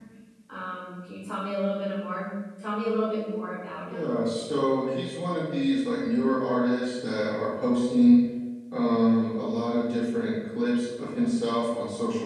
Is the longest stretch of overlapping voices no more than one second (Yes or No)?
Yes